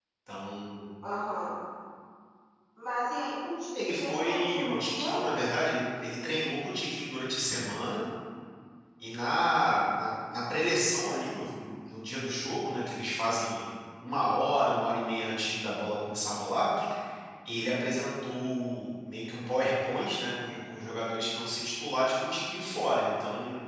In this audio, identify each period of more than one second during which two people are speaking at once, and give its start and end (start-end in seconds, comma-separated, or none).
3.8-5.2